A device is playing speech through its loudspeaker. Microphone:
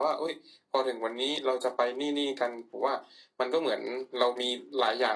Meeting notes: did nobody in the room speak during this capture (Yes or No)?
Yes